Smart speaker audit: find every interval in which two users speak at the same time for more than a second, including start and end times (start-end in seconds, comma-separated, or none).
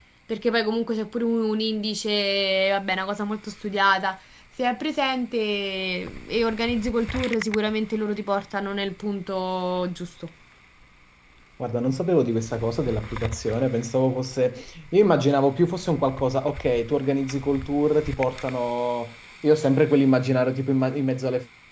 none